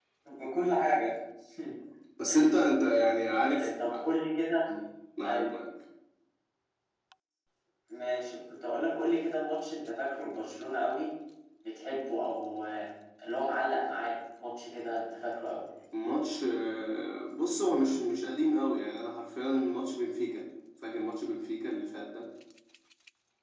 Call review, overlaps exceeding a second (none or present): none